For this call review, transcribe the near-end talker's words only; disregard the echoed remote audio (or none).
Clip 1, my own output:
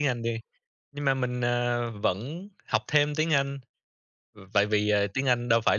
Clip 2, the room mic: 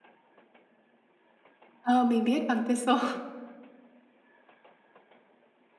Ờ, mình biết bằng TESOL.